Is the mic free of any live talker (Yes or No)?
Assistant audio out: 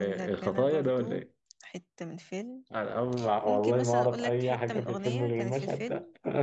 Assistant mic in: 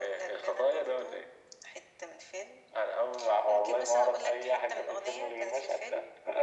Yes